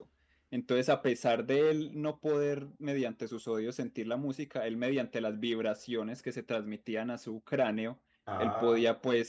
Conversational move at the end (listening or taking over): listening